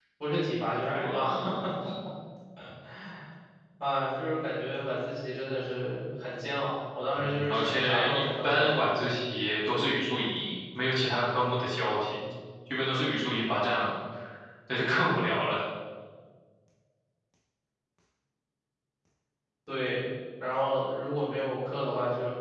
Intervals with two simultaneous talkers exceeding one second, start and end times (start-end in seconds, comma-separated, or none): 7.1-9.0